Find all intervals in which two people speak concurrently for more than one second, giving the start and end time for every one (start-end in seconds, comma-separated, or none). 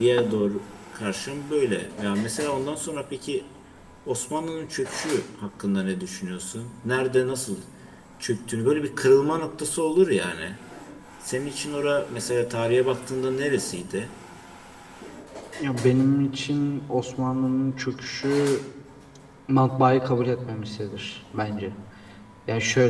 none